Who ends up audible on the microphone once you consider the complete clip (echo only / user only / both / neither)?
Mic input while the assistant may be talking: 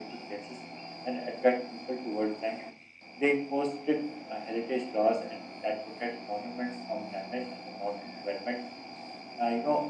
echo only